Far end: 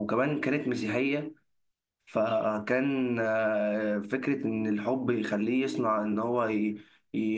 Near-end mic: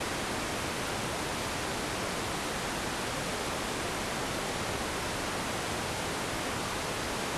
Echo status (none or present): none